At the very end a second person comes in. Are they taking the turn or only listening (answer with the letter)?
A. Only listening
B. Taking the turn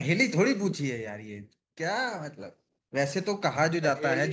A